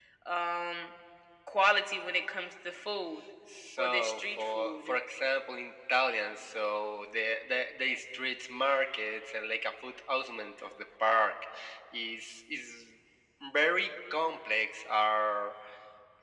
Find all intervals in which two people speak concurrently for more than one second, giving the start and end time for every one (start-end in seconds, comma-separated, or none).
3.8-5.0